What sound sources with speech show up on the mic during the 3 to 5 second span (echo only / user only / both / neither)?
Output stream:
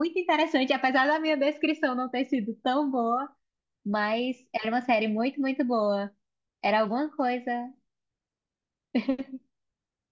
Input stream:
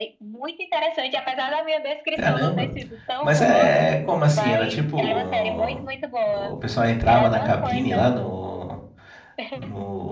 both